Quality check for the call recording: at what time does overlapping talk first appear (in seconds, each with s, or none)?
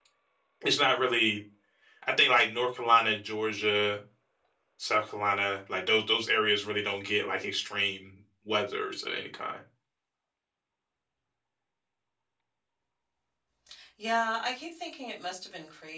none